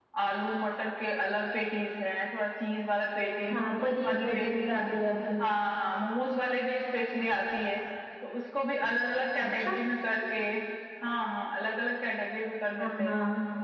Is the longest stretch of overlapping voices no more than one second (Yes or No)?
No